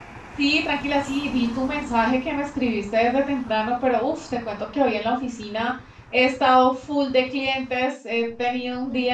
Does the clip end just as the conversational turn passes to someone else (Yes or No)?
No